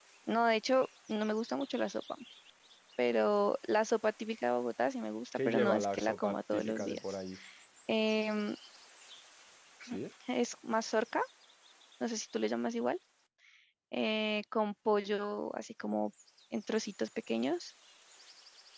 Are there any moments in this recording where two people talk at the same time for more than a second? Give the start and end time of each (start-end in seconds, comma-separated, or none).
5.4-7.0